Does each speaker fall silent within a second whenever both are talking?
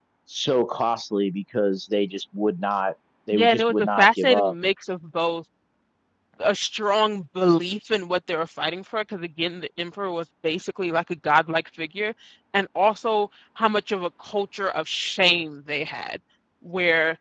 No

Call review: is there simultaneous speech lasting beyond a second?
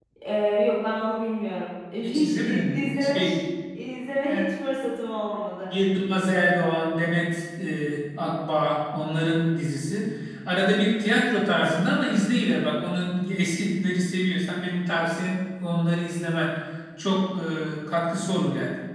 Yes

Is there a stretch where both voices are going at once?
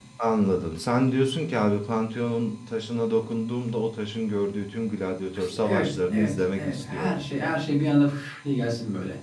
Yes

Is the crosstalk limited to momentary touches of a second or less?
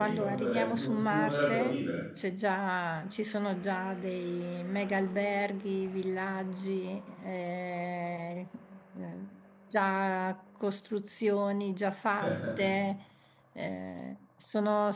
No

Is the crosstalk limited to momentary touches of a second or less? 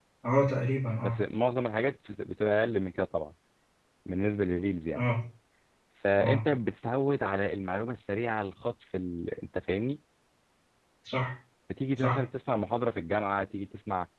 Yes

